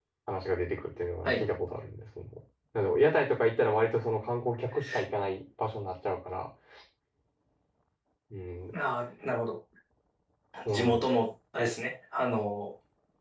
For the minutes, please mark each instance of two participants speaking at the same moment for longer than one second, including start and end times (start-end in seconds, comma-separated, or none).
none